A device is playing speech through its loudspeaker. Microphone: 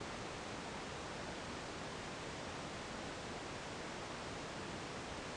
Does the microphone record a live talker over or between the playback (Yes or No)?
No